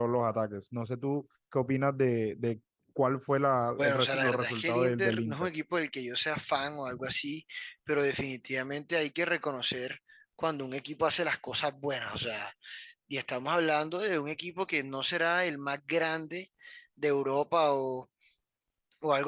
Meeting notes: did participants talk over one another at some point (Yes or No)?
Yes